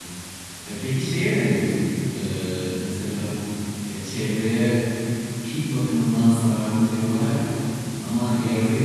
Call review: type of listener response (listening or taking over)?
listening